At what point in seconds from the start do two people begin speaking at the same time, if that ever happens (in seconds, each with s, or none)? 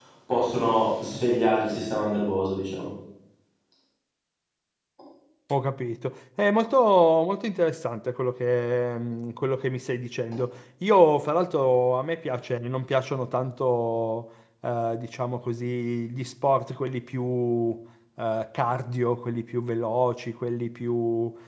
none